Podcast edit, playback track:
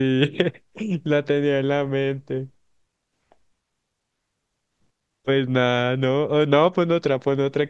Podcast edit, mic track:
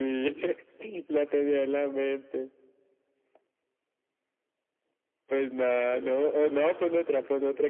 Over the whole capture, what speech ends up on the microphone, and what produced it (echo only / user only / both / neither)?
both